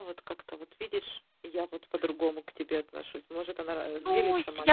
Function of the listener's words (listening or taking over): taking over